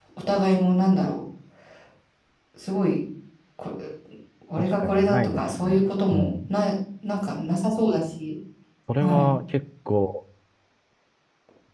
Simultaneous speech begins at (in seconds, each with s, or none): 4.6 s